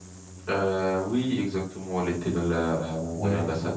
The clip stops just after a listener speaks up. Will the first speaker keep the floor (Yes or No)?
No